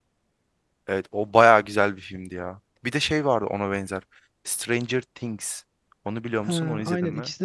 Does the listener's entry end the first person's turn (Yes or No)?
Yes